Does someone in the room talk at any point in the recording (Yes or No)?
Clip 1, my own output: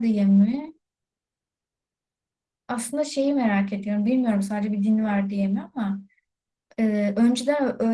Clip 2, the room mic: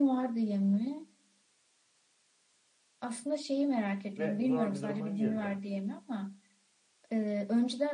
Yes